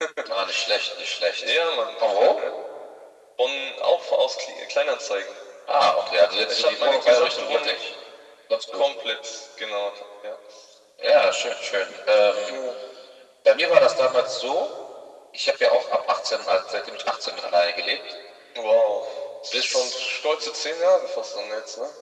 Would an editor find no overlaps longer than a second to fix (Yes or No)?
No